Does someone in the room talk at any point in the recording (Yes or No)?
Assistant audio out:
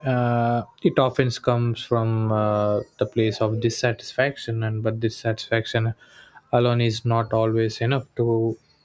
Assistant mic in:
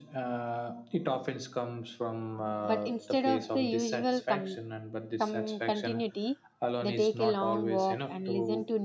Yes